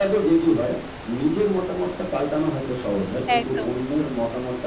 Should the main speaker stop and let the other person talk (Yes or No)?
No